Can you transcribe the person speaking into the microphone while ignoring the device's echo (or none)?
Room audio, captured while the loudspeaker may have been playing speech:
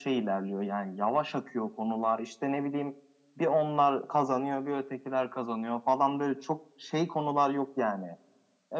none